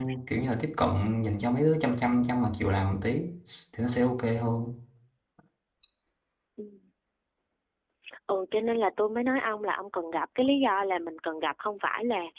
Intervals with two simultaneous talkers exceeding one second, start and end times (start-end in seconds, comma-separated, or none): none